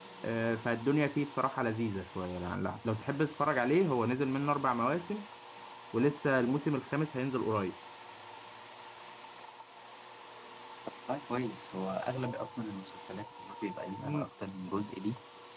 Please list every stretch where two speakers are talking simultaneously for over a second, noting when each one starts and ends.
none

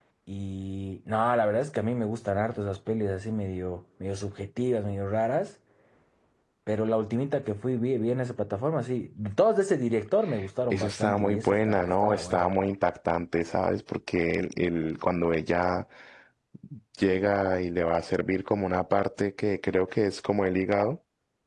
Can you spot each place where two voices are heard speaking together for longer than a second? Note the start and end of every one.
10.6-12.5

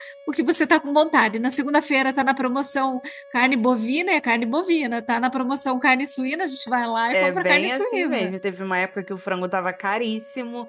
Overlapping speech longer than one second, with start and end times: 7.1-8.3

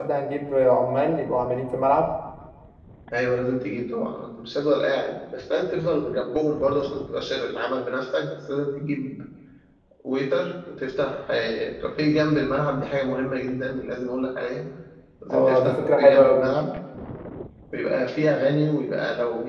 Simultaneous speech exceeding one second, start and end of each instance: 15.3-16.5

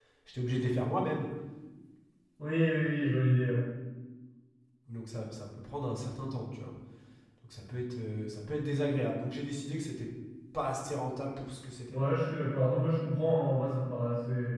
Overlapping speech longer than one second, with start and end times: none

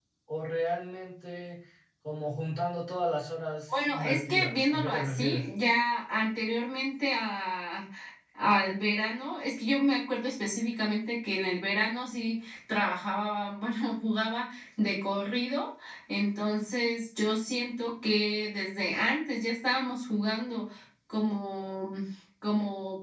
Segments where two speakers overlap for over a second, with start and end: 3.7-5.5

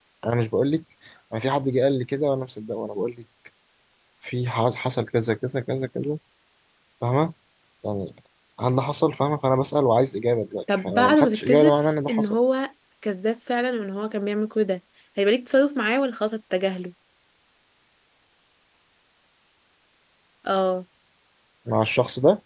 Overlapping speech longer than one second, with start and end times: 10.8-12.3

